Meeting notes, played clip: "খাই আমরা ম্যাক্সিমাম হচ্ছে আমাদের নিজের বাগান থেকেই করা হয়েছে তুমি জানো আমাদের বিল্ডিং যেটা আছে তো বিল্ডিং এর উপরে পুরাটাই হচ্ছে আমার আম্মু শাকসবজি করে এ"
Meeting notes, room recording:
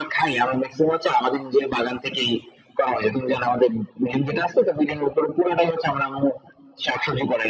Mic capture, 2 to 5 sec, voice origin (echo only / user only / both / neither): echo only